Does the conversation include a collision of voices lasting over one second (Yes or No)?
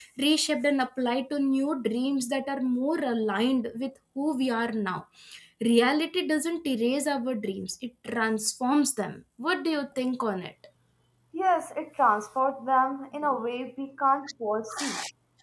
No